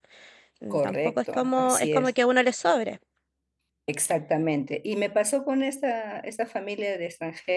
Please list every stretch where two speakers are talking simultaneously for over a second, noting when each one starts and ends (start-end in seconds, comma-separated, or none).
0.7-2.1